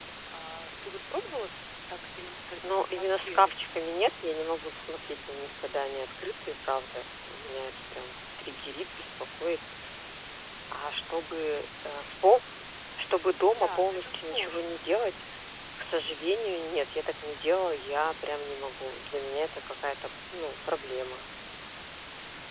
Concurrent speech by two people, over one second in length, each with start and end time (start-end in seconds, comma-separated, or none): 2.7-4.0, 13.5-14.8